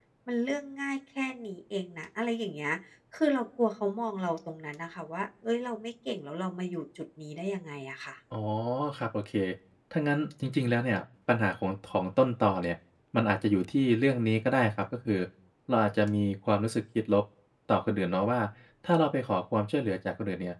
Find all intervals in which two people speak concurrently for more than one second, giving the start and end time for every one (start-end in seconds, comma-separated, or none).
none